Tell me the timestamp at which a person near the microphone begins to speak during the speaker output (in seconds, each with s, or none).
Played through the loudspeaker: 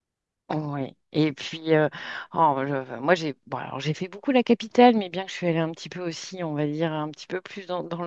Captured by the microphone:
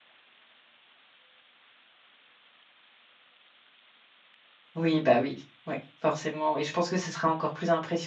4.8 s